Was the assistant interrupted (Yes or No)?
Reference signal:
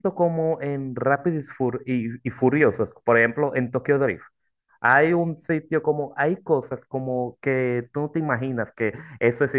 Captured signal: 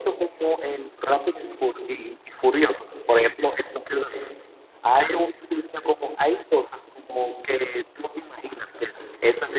No